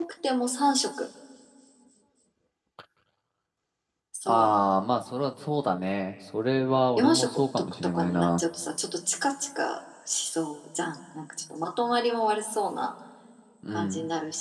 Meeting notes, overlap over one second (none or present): present